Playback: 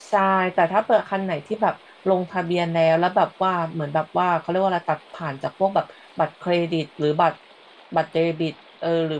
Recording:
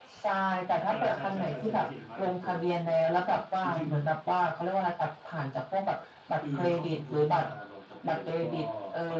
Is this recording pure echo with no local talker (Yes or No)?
No